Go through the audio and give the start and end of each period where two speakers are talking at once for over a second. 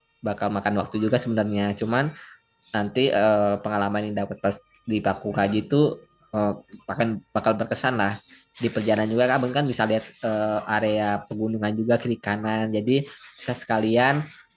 none

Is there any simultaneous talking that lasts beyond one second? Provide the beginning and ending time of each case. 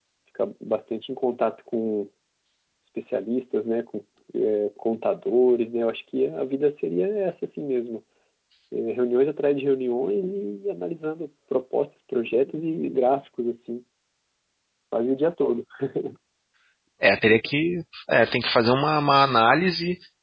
none

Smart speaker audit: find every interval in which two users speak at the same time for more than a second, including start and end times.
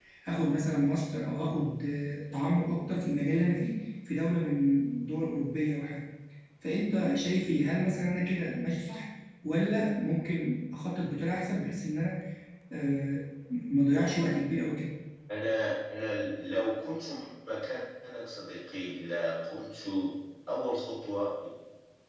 none

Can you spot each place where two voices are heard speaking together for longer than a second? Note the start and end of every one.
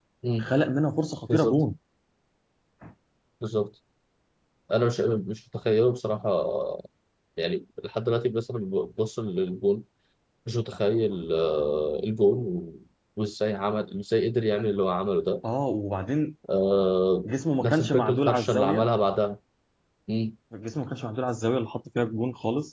17.6-18.9

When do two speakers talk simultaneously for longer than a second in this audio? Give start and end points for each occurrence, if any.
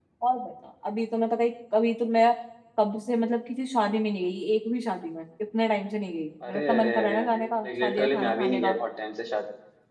6.5-8.7

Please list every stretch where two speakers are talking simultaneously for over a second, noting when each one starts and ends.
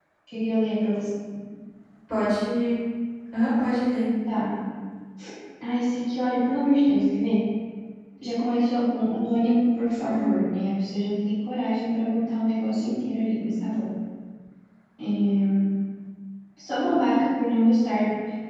none

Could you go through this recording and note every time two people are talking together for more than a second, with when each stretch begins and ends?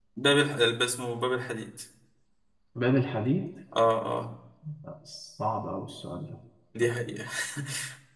none

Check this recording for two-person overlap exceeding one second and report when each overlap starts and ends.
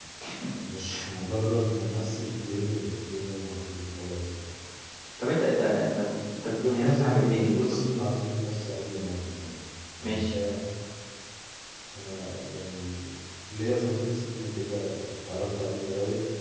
6.5-7.8

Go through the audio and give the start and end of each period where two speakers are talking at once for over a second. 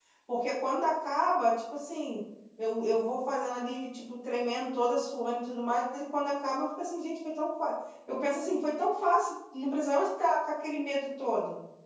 none

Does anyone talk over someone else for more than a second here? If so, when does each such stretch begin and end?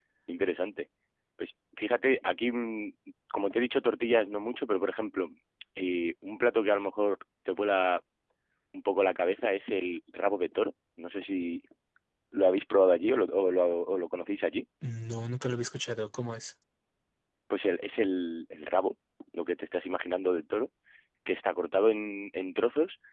none

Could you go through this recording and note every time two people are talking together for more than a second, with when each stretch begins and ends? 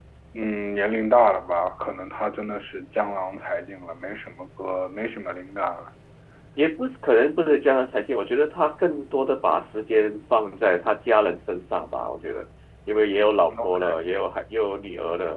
none

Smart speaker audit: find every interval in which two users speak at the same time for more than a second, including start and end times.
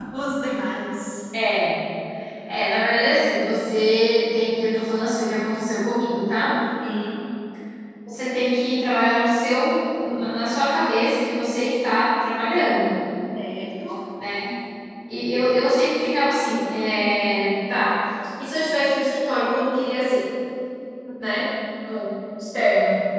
none

